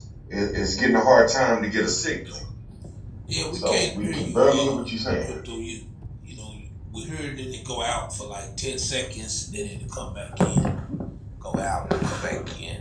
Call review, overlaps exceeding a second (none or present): present